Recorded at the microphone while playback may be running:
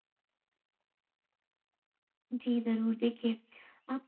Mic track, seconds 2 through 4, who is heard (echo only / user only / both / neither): user only